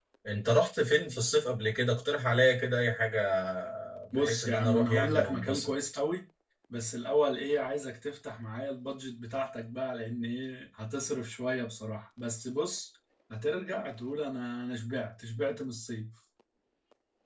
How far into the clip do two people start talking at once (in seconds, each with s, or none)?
4.2 s